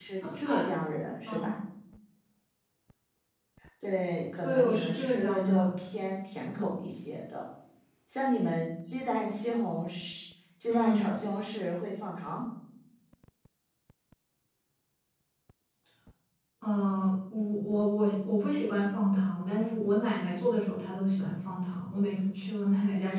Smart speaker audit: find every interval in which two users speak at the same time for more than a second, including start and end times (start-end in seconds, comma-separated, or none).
4.4-5.7